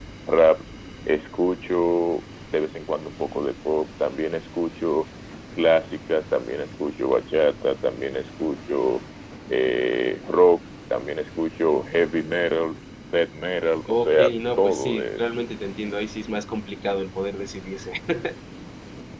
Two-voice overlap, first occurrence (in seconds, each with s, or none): 13.9 s